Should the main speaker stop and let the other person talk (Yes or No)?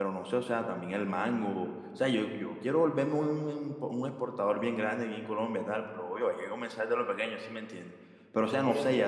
No